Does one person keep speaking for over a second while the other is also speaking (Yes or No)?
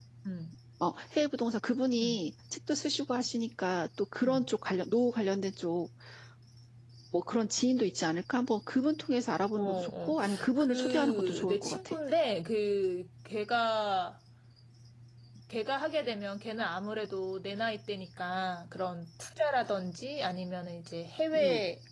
Yes